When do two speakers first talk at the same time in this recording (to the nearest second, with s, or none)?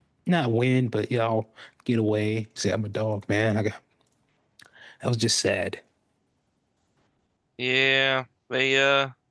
none